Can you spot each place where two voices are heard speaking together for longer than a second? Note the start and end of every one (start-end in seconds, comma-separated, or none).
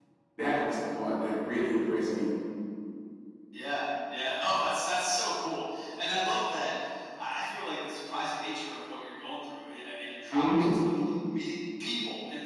none